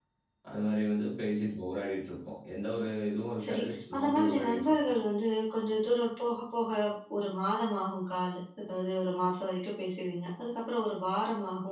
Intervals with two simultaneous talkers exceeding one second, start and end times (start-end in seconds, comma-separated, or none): 3.4-4.9